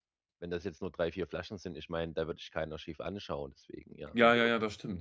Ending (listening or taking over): taking over